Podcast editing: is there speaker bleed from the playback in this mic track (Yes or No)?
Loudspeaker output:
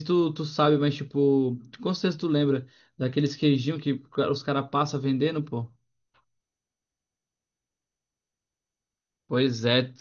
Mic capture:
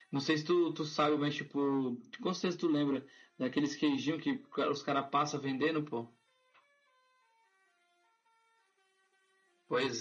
Yes